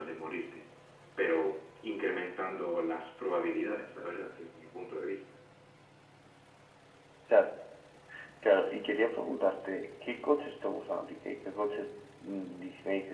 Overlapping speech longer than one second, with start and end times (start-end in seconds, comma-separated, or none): none